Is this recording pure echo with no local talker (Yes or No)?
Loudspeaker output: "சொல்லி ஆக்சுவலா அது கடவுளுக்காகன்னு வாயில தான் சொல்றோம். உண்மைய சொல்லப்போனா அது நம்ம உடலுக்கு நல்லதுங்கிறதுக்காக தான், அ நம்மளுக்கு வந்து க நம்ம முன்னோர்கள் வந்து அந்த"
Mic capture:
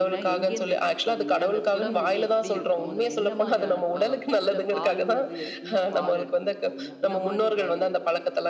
No